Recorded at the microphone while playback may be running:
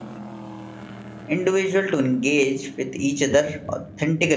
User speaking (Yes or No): Yes